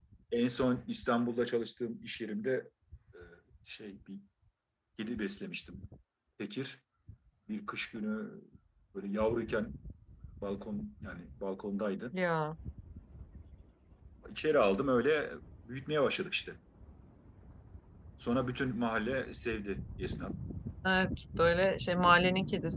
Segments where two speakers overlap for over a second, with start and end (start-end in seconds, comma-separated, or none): none